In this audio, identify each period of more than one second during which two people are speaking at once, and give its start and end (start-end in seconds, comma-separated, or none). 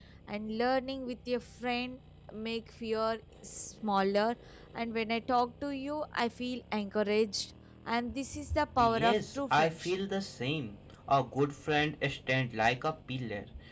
8.8-10.0